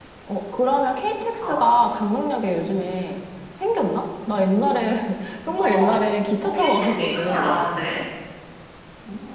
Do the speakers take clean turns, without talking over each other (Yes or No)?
No